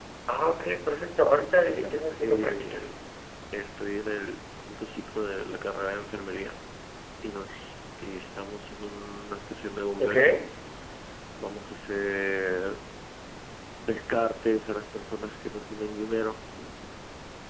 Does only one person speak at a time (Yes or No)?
No